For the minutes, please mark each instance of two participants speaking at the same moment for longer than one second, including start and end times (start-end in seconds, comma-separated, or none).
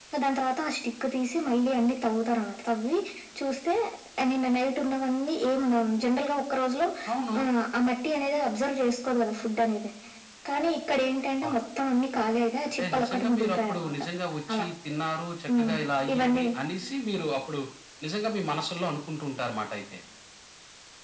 12.7-14.0